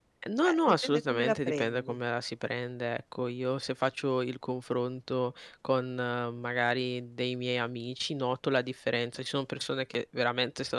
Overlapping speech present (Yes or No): Yes